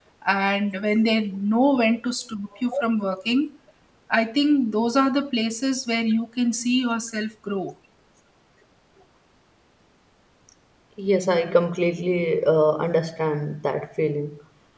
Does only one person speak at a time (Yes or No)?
Yes